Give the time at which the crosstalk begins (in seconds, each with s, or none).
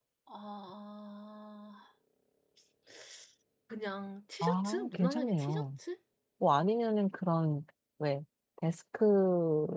4.4 s